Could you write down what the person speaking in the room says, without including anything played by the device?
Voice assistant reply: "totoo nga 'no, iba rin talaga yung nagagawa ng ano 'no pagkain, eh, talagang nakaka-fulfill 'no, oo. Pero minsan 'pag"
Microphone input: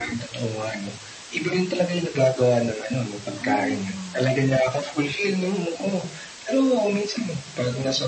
Ano ba yung mga kinakain?

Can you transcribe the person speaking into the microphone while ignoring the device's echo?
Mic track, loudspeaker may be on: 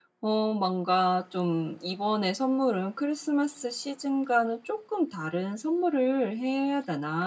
none

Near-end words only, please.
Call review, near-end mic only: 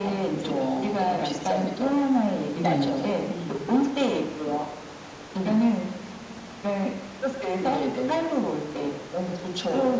네.

